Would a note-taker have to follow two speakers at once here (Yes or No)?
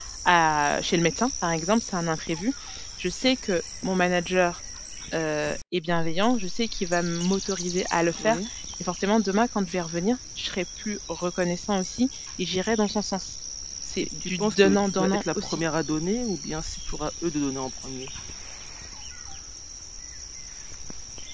Yes